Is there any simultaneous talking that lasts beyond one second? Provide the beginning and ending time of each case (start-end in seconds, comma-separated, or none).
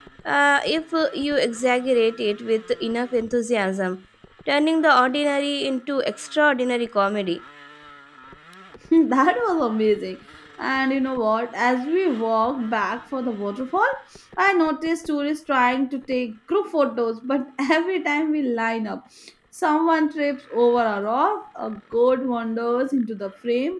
none